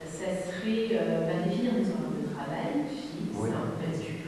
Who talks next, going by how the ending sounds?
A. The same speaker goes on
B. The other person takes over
A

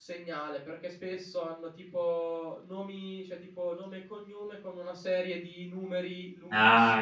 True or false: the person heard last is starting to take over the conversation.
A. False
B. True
B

